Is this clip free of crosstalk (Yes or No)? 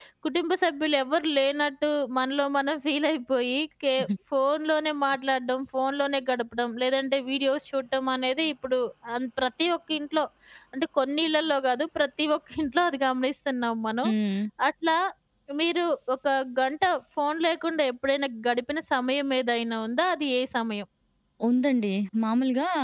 Yes